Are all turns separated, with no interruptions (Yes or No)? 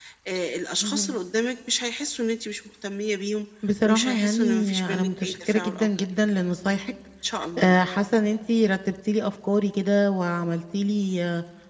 No